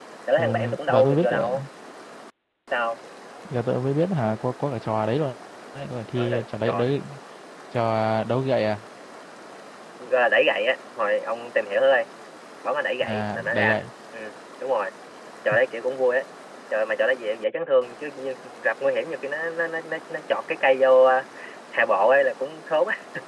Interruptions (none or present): present